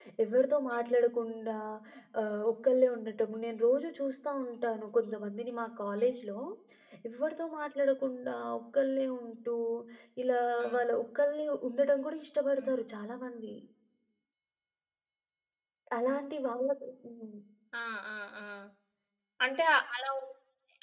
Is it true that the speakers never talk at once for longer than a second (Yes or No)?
Yes